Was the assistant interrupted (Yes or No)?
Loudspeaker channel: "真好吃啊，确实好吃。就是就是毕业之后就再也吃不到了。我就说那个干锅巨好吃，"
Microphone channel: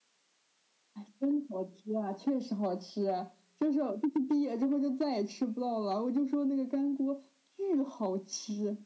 No